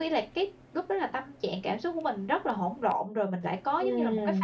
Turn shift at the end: Yes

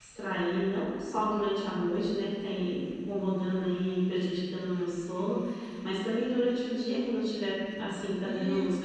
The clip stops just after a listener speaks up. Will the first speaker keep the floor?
Yes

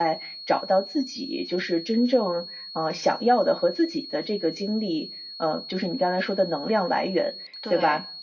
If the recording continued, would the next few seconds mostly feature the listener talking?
No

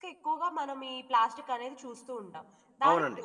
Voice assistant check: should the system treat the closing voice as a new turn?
No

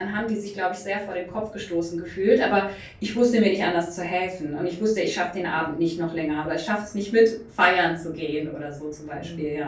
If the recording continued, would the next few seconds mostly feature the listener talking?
Yes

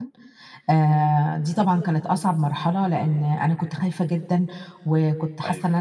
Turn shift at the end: No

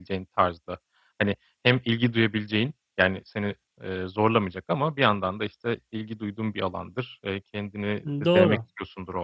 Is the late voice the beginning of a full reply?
No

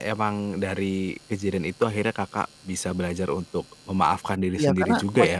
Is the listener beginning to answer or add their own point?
Yes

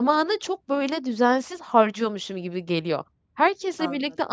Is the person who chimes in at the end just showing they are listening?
Yes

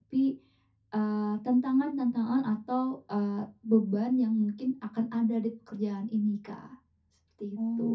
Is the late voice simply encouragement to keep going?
No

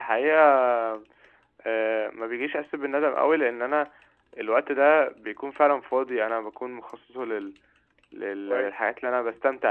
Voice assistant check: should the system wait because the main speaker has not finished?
Yes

